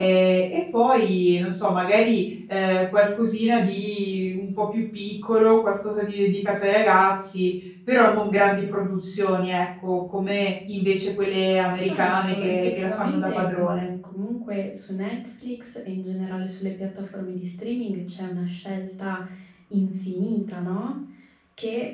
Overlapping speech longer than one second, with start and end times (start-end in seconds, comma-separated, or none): 11.8-13.9